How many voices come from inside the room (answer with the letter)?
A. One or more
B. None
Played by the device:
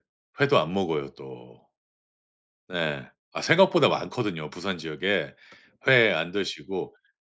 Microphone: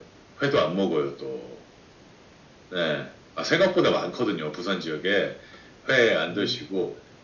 A